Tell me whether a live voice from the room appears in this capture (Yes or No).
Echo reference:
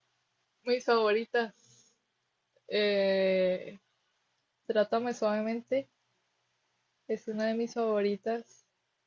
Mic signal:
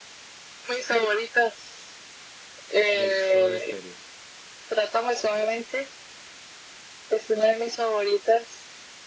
Yes